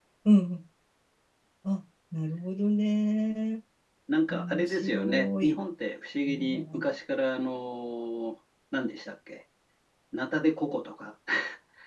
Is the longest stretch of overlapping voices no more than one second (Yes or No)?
No